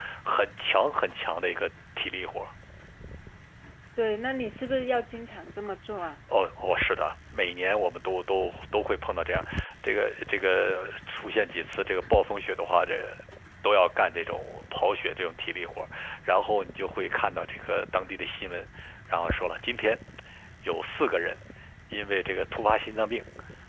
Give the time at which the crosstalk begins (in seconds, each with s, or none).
none